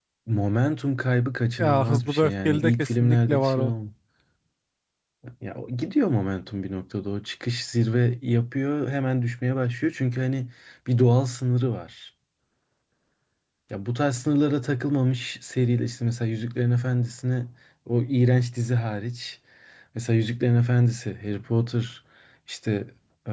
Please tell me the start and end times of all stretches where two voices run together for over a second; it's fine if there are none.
1.6-3.7

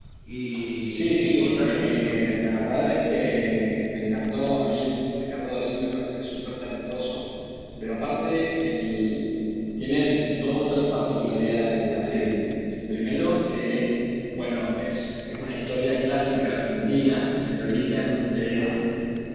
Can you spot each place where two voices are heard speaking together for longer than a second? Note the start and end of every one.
0.9-2.1

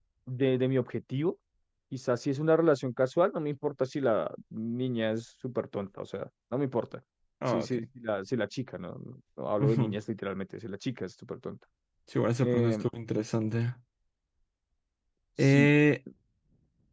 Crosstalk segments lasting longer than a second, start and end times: none

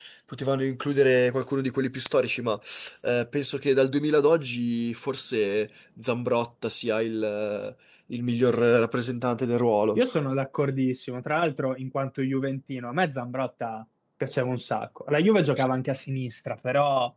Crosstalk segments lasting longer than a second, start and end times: none

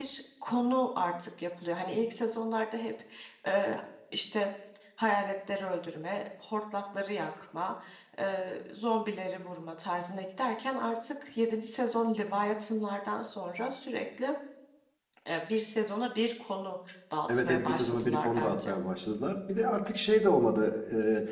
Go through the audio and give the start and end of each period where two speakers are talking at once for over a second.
17.3-18.7

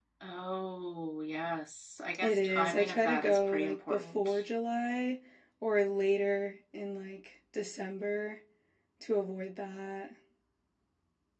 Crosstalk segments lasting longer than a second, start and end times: 2.2-4.4

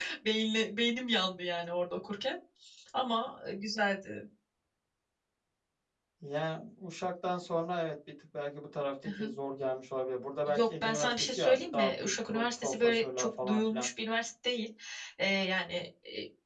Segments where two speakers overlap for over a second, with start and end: 10.5-13.9

